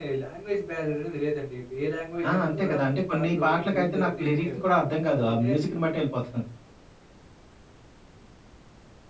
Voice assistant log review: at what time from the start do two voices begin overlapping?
2.5 s

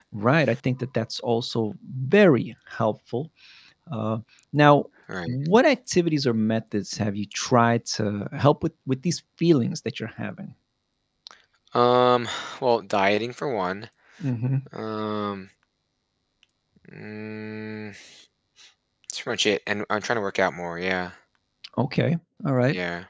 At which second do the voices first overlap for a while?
none

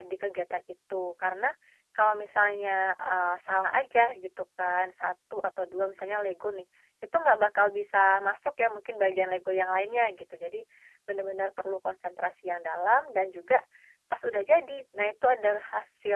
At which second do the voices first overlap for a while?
none

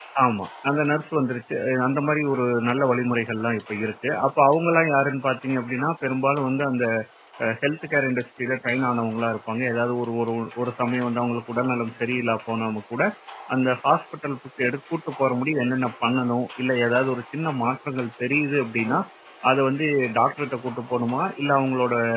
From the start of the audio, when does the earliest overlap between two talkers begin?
none

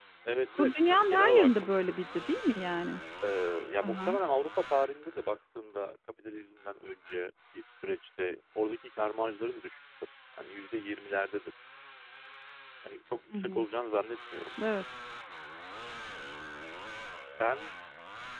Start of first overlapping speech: 0.6 s

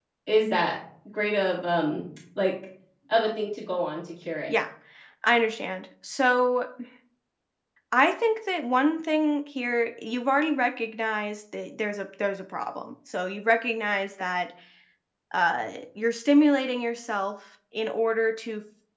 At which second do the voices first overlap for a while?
none

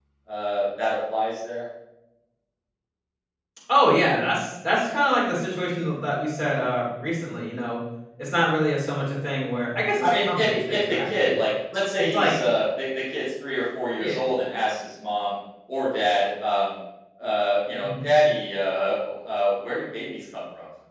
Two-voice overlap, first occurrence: 10.0 s

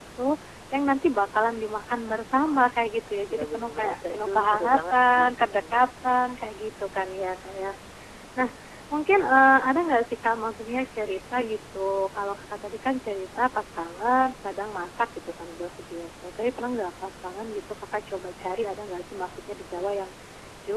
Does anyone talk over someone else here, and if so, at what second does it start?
3.3 s

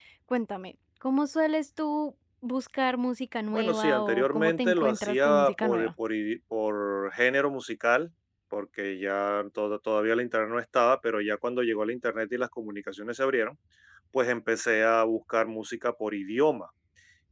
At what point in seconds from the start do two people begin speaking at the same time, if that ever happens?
3.5 s

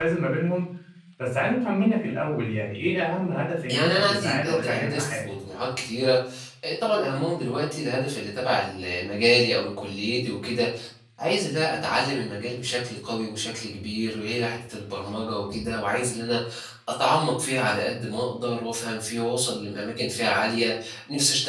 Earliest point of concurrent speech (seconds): 3.7 s

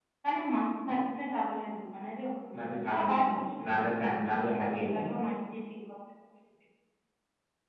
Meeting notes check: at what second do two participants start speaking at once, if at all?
2.5 s

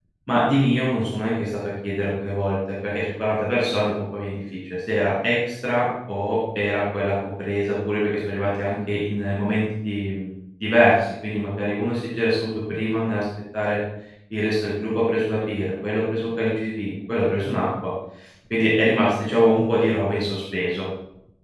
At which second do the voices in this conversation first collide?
none

